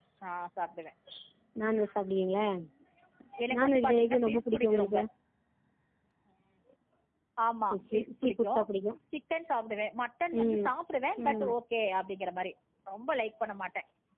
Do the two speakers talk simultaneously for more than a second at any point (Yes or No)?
Yes